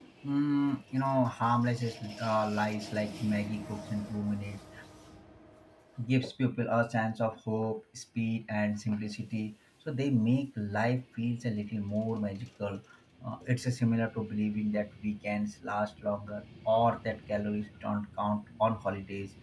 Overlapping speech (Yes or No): No